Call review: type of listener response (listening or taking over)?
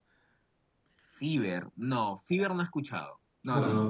taking over